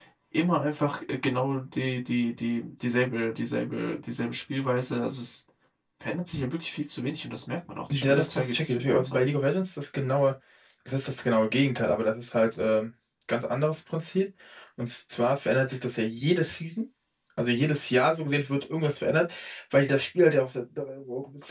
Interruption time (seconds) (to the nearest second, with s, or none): 8 s